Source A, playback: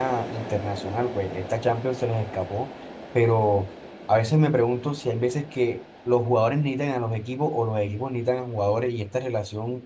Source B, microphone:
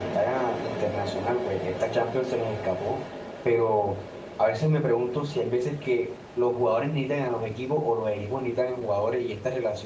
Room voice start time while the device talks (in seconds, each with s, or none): none